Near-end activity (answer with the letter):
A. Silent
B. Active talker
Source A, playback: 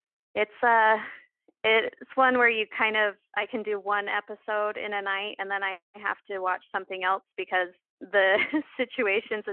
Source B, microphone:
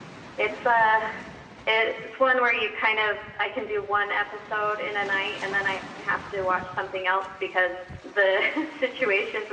A